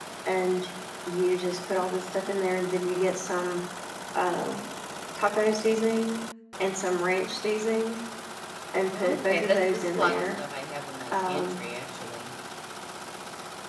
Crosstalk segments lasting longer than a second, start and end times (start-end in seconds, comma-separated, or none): 8.9-10.2